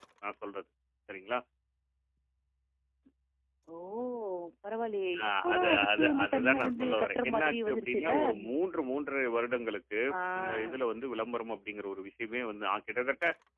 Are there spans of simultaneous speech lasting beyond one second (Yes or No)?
Yes